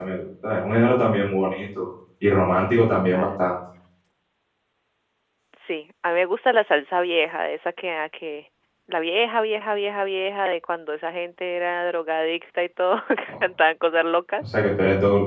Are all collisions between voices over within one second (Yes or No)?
Yes